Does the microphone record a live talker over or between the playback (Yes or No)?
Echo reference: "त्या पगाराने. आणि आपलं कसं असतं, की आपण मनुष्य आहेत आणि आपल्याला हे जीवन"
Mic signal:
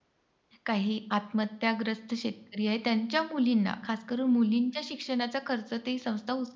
Yes